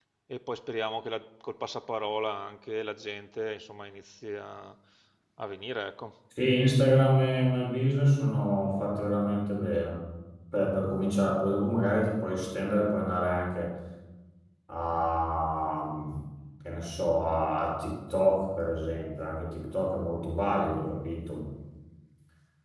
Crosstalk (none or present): none